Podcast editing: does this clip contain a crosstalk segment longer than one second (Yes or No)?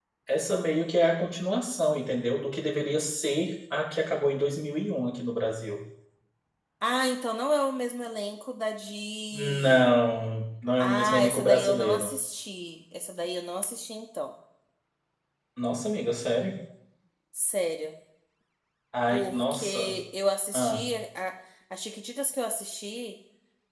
Yes